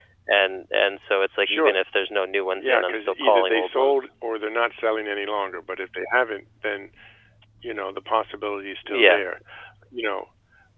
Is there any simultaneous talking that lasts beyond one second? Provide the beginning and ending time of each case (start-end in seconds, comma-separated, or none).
2.5-4.1